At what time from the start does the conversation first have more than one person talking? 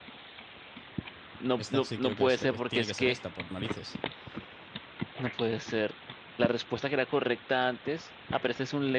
2 s

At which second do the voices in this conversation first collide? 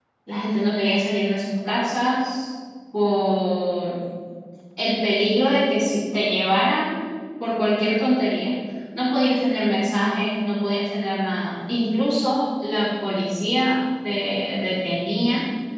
none

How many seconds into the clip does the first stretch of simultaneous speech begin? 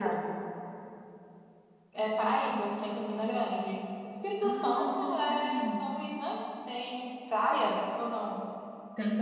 4 s

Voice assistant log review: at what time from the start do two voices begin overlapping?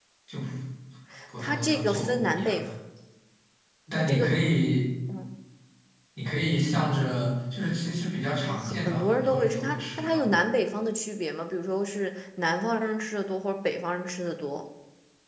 1 s

